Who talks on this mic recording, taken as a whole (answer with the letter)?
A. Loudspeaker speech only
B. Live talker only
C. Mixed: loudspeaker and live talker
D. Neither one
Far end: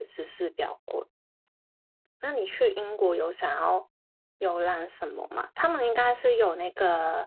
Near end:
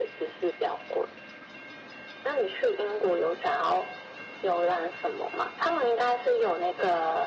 A